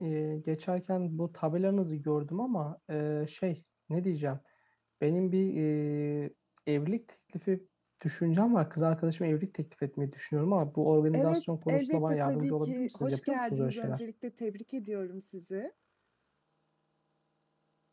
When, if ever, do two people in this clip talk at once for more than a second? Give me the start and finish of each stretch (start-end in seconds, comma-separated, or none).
11.1-14.0